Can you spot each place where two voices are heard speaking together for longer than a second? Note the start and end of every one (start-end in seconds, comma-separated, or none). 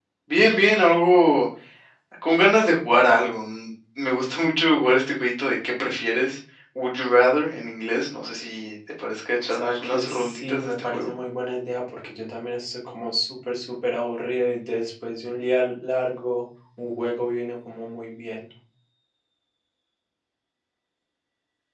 9.5-11.1